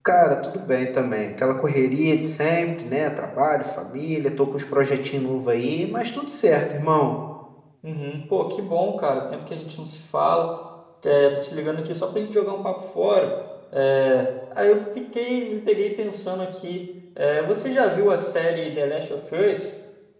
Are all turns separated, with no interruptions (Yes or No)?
Yes